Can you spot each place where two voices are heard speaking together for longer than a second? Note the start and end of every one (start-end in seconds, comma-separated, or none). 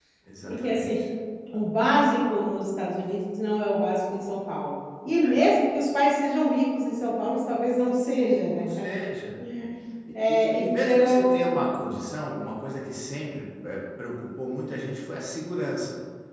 10.3-11.7